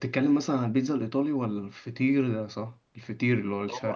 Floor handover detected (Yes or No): Yes